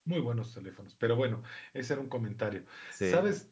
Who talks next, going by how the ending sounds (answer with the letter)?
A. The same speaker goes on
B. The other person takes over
A